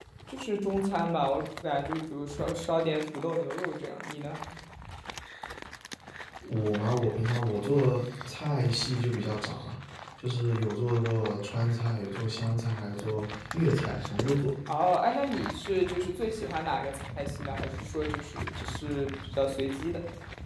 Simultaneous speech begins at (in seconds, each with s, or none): none